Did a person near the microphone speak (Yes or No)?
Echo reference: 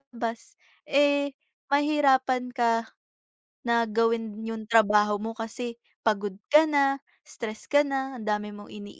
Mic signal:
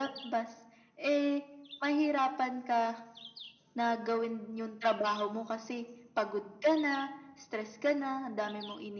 No